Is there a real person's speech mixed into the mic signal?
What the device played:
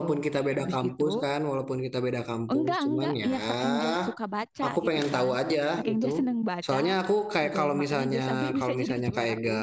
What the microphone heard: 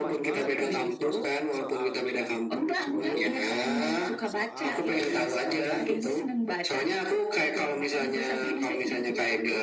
Yes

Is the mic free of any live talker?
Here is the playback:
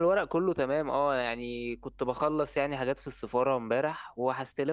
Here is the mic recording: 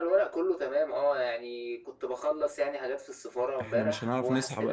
No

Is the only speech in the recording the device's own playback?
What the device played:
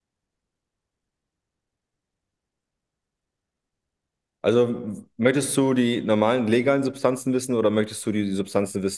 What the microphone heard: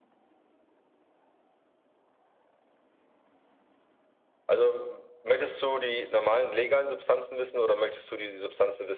Yes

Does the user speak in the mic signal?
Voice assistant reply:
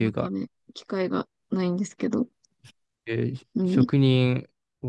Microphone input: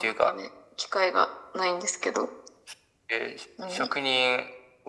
No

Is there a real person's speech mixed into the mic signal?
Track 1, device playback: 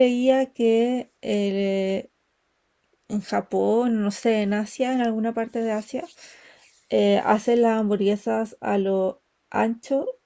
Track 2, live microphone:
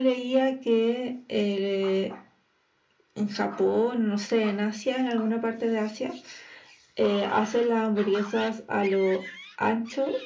No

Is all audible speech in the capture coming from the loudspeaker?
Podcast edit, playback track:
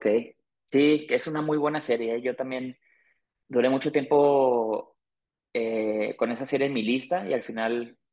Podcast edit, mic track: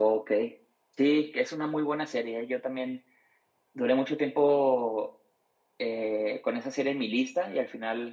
Yes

